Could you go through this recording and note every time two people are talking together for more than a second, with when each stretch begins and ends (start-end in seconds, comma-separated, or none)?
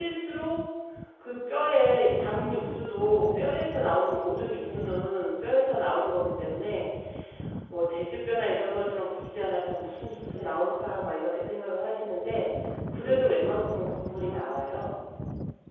12.9-14.7